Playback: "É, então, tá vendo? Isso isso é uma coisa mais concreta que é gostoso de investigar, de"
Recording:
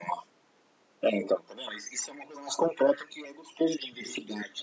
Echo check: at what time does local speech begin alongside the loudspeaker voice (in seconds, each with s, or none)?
none